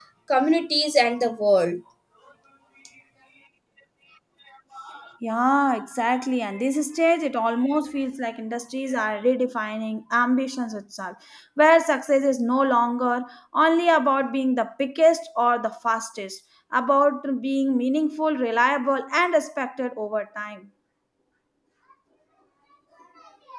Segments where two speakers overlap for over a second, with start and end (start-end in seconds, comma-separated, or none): none